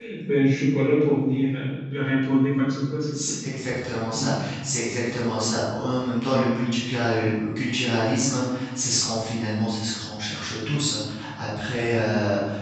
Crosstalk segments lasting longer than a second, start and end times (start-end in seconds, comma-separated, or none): none